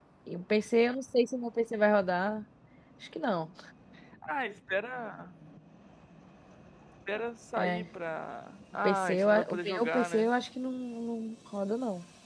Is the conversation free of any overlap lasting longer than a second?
No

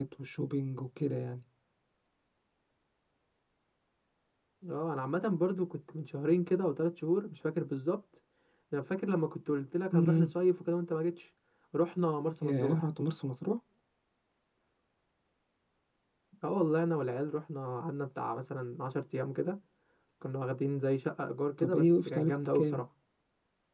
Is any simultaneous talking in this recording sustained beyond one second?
Yes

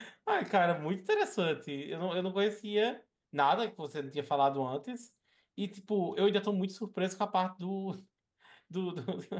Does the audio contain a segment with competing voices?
No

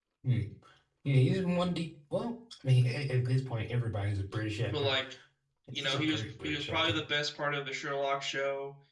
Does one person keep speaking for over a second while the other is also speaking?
Yes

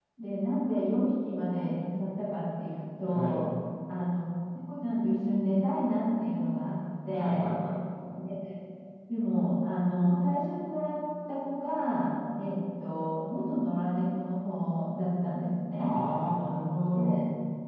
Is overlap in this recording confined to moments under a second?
Yes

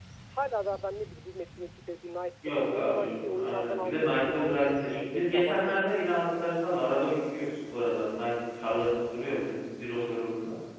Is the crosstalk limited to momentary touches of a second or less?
No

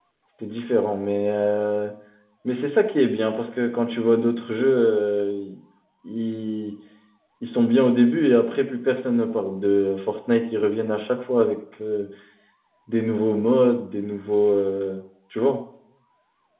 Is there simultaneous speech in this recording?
No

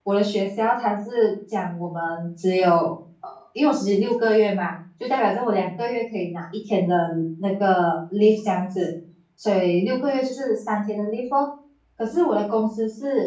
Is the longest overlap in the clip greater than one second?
No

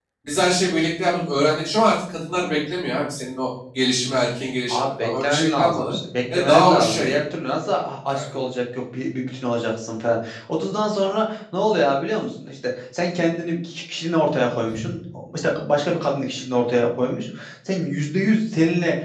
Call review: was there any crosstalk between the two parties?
Yes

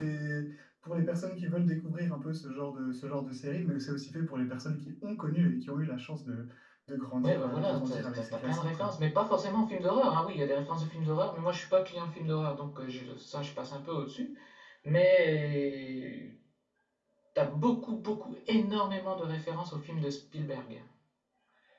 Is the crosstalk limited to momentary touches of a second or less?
No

